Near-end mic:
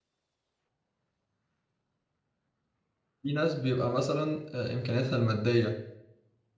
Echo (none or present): none